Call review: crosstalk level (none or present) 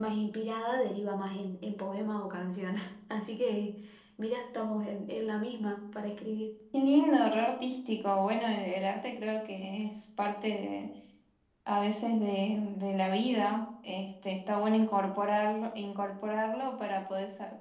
none